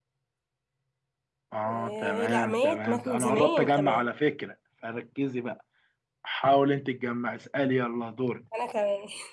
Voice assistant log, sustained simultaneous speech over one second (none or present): present